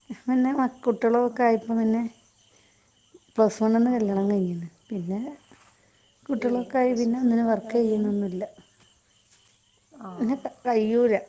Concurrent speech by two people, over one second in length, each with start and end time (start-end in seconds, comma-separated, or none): 6.5-8.1